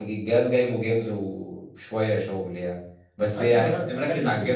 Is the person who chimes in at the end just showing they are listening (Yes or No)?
No